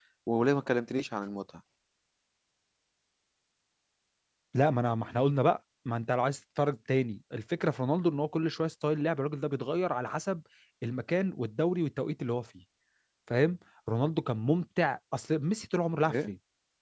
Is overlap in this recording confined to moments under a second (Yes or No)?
Yes